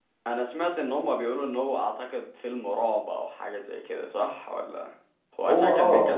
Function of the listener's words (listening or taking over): taking over